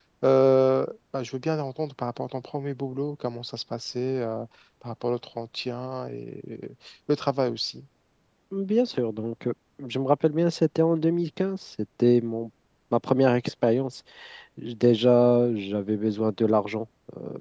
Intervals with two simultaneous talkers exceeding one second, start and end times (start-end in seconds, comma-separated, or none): none